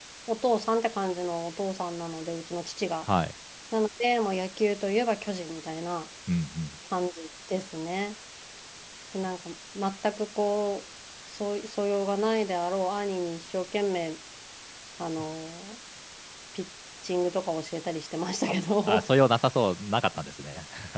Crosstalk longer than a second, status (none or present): none